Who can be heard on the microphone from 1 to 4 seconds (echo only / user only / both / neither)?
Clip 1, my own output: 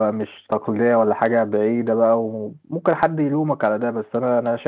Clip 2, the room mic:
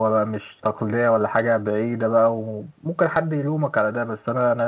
echo only